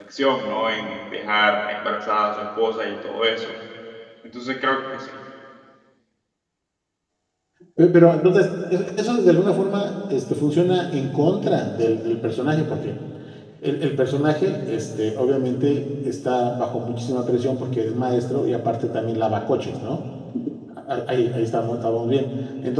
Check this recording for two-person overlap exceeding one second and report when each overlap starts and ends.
none

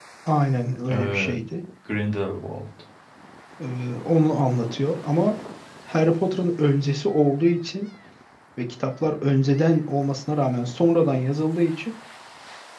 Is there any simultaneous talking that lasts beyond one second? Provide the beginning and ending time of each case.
none

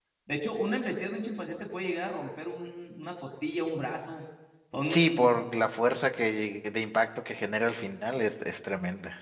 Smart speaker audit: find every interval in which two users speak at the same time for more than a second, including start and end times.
none

